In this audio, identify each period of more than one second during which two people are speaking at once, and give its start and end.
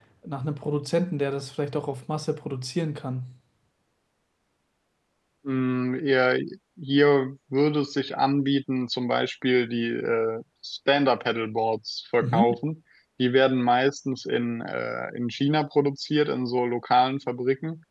none

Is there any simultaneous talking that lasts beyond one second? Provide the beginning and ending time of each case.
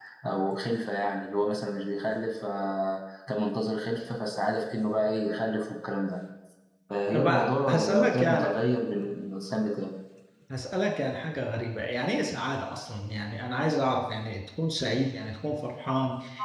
7.1-8.5

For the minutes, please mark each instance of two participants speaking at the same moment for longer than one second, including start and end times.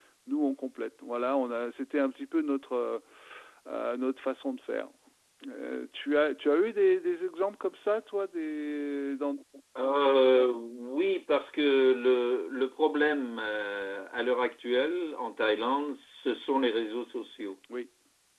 none

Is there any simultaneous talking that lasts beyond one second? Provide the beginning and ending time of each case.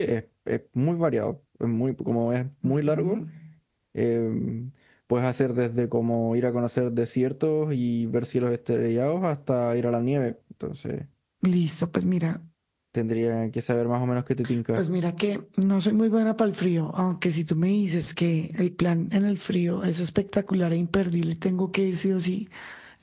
none

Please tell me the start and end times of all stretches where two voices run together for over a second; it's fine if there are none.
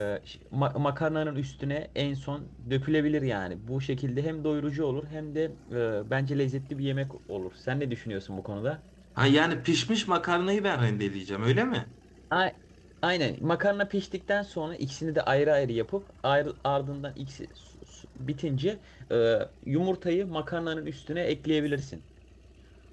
none

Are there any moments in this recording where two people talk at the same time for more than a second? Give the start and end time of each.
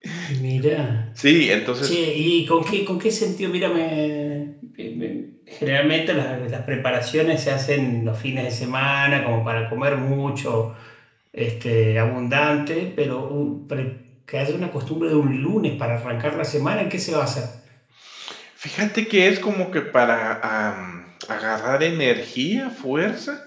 none

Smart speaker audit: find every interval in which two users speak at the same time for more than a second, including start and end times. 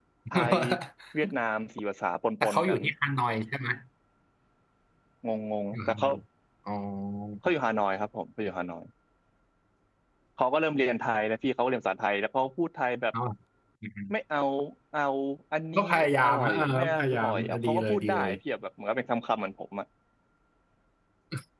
16.2-18.3

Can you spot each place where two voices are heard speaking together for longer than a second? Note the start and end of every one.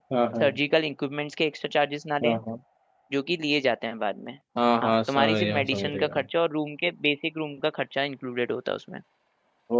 4.8-6.2

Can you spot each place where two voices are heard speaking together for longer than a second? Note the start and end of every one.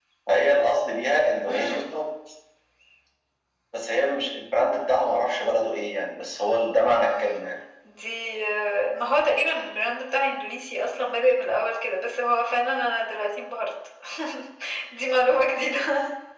none

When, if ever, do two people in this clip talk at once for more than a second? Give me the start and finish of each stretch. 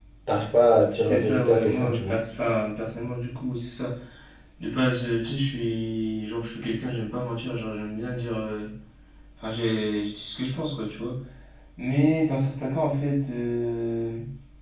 1.0-2.2

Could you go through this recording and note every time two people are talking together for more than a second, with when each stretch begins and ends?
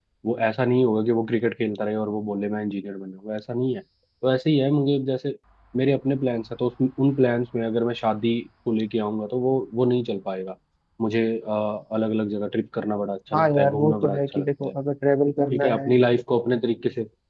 13.3-14.7

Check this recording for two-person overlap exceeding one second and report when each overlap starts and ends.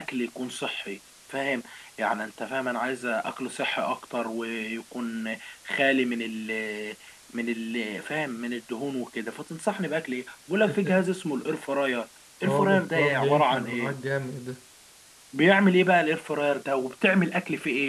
12.4-13.9

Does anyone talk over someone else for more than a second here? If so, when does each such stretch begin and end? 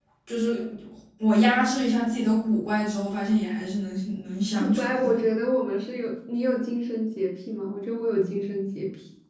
none

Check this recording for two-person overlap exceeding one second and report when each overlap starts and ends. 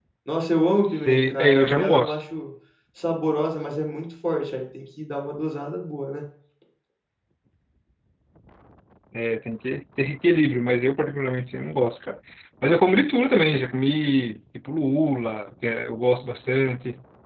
0.8-2.2

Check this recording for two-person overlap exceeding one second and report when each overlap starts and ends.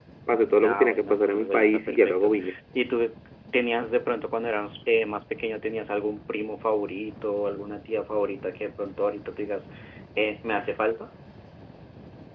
0.6-2.3

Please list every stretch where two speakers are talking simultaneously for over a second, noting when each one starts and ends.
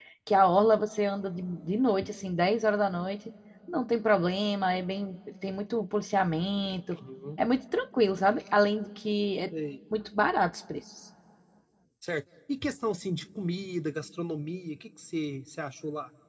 none

